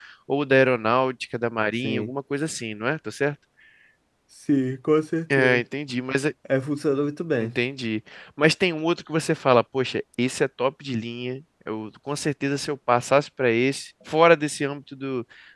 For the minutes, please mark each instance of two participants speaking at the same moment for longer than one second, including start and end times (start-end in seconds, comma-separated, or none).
none